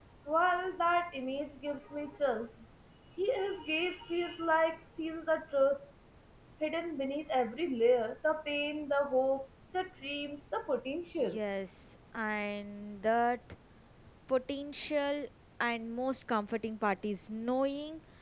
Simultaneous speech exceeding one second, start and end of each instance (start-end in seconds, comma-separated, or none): none